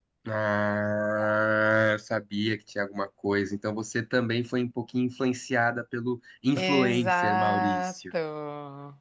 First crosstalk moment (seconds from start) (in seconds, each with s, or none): 6.6 s